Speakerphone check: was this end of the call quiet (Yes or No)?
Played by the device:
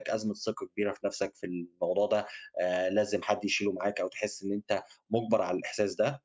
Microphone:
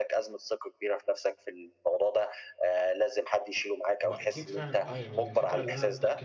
No